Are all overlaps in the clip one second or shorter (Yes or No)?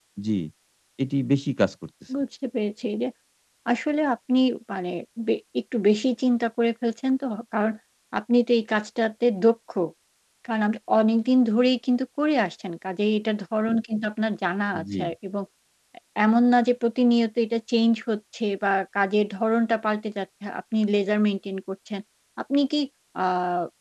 Yes